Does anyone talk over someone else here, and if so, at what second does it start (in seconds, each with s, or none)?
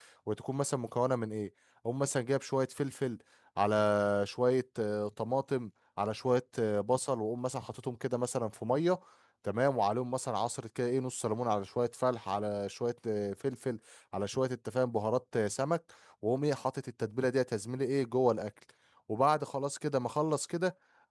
none